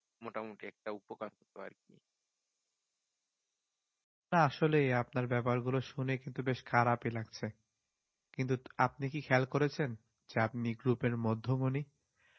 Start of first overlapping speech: none

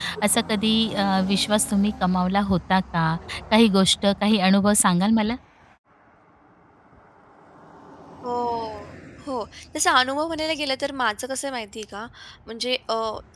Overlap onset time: none

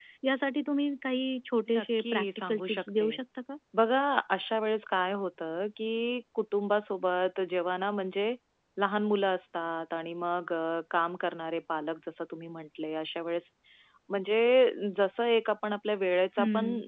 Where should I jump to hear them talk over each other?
2 s

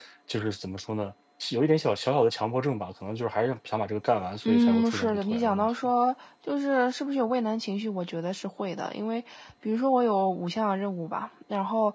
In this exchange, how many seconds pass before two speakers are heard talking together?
4 s

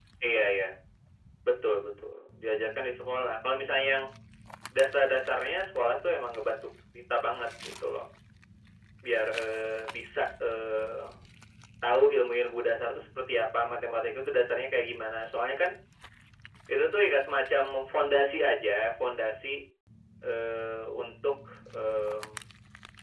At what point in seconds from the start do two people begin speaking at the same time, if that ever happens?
none

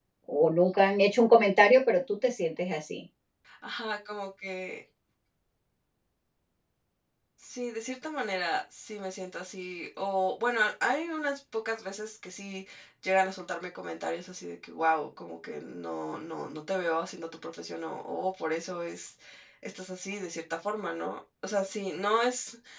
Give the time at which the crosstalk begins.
none

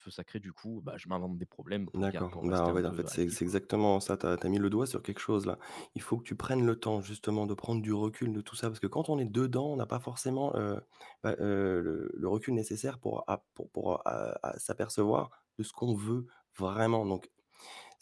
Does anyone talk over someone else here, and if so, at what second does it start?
2 s

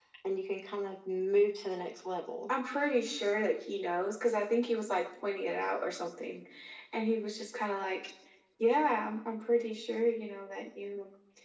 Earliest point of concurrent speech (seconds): none

